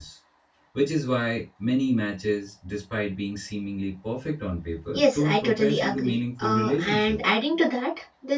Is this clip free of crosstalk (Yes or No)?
No